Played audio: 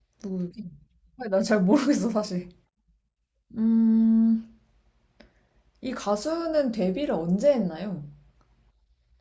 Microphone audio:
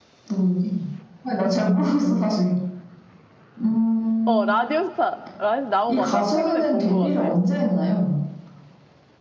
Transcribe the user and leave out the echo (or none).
어, 라디오스타. 라디오 나온 것 같아. 나 최근에 본 것 같아.